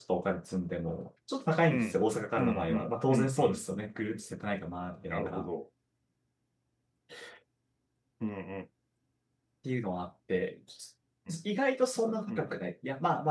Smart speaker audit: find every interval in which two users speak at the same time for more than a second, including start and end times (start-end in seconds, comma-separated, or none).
2.4-3.6